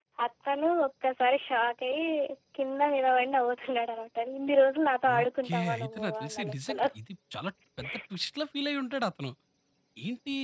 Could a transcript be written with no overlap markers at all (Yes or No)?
No